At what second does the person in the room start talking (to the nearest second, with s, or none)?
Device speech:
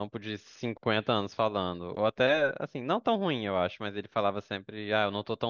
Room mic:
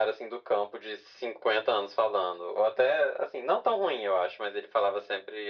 none